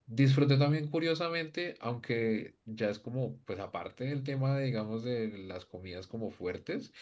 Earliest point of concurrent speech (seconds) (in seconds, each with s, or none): none